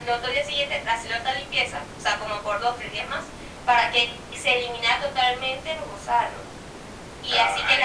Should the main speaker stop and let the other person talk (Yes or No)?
No